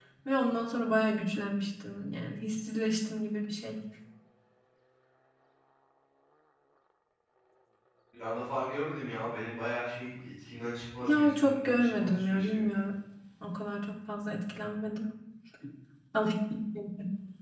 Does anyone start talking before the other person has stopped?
Yes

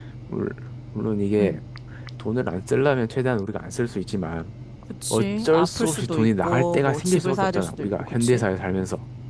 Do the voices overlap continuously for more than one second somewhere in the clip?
Yes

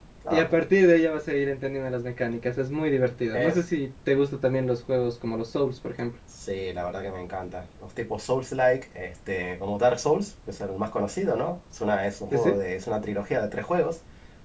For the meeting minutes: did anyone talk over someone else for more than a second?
No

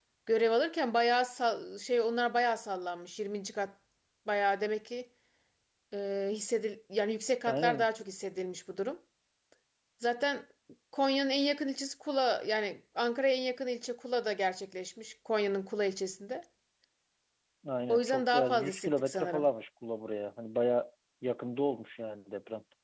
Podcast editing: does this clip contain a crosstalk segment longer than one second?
Yes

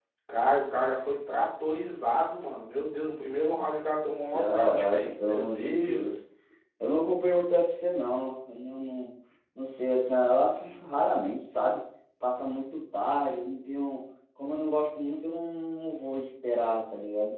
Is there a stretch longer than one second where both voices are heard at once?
Yes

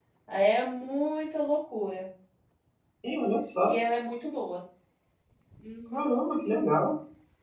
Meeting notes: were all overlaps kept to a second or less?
Yes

